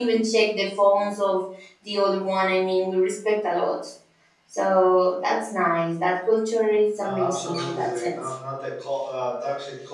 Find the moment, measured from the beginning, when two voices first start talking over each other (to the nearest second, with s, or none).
7 s